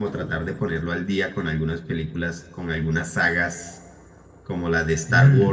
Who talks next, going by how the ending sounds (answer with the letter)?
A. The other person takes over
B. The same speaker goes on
B